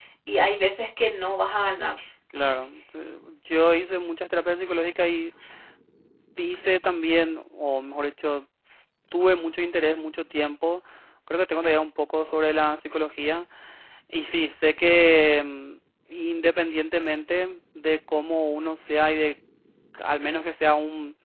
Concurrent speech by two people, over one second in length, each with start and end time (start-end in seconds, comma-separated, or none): none